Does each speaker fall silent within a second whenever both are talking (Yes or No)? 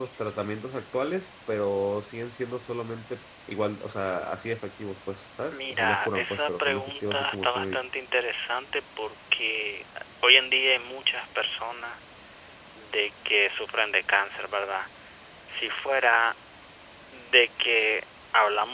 No